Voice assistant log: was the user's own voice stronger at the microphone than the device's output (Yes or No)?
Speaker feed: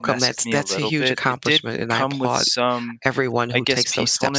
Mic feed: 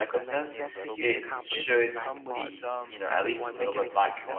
Yes